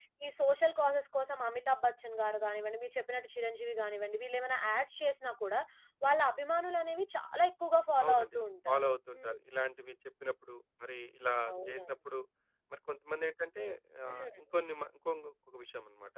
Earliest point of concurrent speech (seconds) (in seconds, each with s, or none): 8.0 s